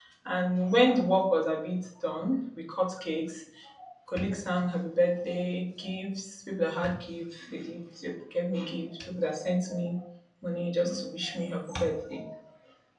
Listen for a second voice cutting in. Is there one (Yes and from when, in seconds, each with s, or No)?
No